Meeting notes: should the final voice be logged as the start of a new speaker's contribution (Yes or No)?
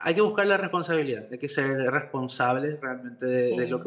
Yes